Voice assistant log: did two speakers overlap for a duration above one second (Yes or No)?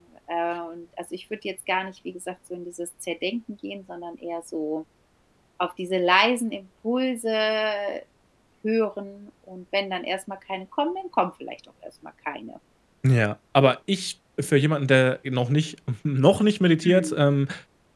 No